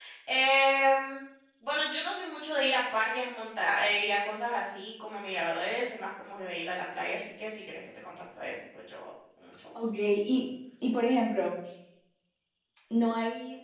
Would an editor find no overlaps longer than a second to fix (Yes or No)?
Yes